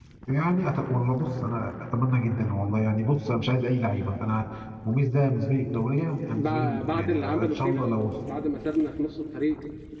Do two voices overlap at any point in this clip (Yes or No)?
Yes